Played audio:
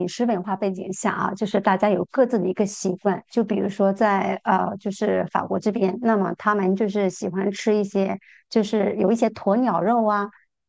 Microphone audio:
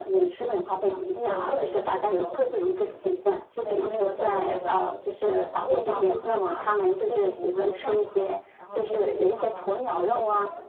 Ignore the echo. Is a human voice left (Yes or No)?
Yes